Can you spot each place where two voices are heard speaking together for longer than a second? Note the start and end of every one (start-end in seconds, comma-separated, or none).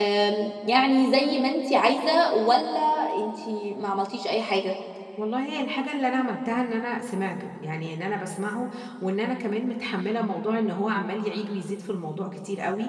none